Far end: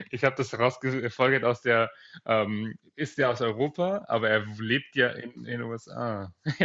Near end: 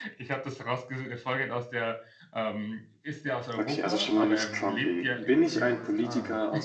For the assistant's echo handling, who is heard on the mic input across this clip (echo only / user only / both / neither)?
both